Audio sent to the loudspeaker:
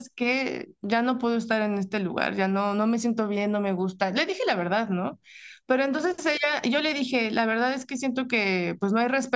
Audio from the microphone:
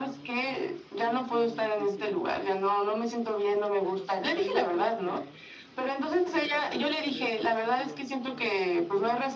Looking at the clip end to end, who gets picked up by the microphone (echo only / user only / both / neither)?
both